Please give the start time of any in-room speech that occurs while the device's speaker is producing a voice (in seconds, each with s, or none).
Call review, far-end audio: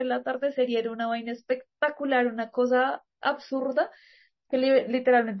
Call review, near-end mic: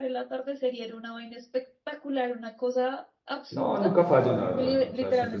3.5 s